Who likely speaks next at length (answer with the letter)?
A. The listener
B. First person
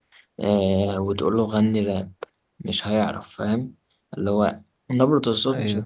B